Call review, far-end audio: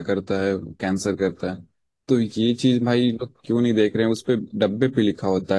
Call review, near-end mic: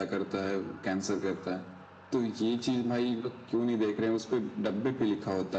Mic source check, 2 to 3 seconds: echo only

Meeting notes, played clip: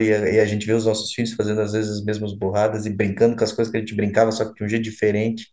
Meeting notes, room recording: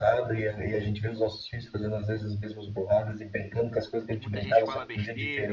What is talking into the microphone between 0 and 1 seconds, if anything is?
echo only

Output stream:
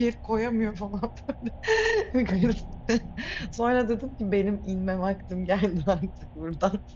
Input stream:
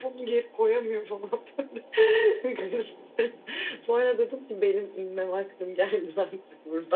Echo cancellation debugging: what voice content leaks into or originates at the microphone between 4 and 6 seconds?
echo only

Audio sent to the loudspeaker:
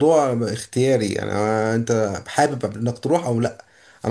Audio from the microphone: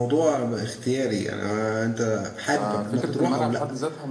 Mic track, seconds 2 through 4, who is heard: both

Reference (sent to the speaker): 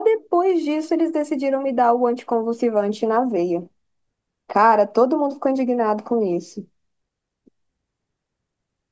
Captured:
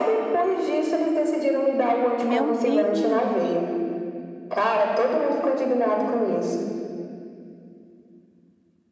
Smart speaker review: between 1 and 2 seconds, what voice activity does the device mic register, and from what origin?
echo only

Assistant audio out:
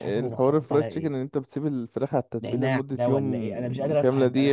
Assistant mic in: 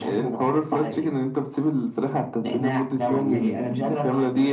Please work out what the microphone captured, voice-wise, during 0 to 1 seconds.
echo only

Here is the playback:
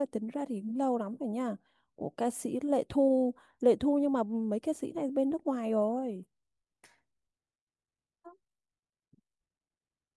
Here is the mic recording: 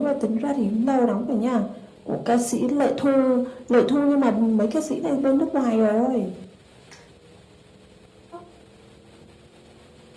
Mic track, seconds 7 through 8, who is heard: neither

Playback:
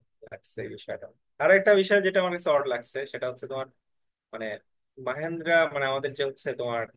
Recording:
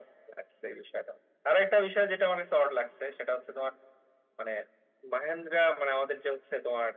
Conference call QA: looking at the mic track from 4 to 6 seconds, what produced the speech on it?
echo only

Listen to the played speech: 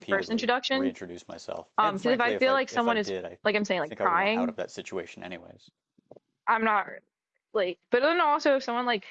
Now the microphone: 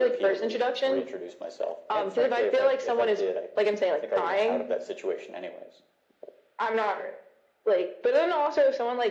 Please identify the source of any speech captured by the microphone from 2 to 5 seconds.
echo only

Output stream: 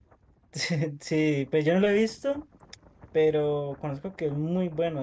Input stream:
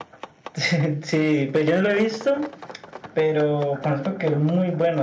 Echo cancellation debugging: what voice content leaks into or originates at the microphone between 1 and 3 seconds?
echo only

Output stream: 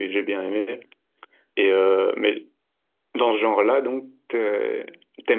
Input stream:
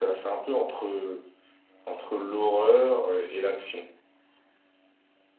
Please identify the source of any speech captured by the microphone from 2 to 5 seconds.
user only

